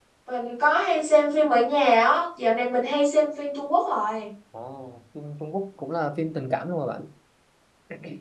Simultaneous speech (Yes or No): No